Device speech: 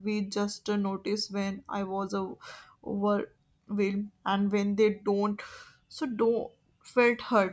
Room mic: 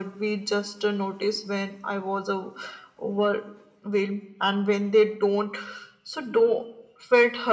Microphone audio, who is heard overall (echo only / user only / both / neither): echo only